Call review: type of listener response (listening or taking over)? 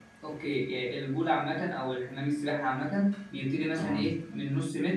listening